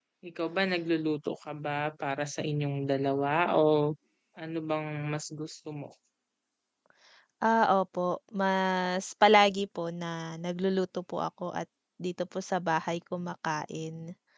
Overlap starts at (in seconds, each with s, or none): none